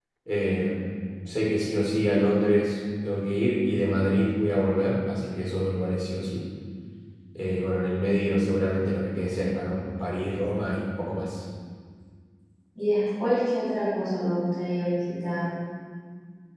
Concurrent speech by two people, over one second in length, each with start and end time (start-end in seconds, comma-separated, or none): none